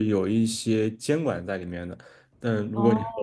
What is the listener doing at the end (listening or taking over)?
listening